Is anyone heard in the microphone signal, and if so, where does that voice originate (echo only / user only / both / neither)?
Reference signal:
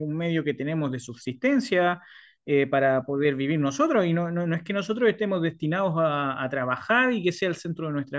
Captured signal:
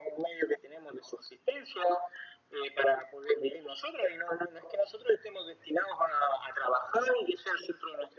echo only